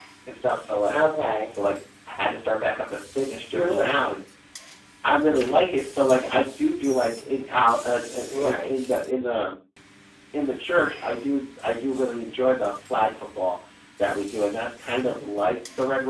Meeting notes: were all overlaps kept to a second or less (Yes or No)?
Yes